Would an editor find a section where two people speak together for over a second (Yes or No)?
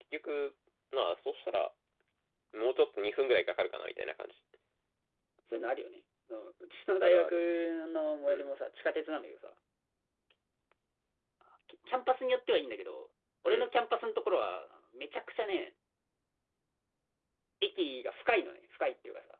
No